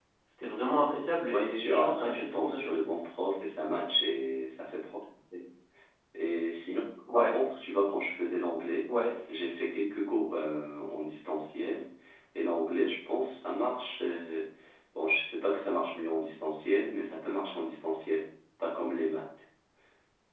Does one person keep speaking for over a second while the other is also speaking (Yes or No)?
Yes